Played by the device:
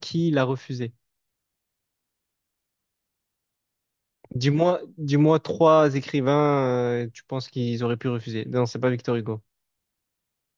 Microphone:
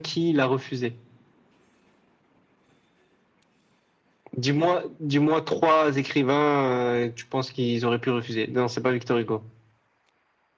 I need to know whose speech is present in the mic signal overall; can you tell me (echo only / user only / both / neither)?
echo only